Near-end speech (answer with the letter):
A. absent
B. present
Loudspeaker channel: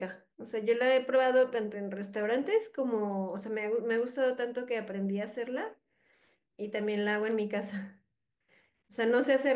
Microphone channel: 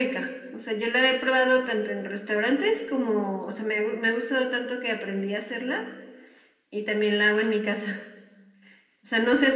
A